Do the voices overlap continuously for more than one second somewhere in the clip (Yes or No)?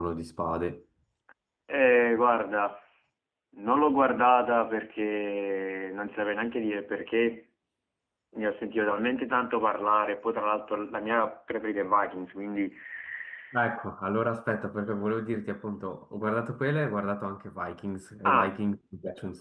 No